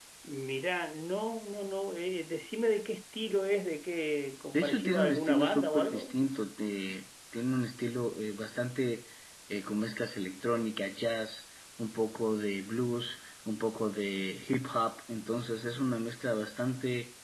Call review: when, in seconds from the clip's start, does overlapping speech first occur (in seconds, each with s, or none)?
4.5 s